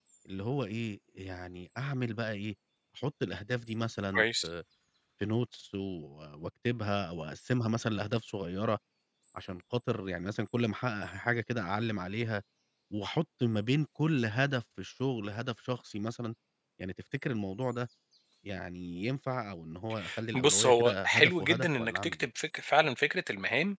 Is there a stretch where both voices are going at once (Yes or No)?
Yes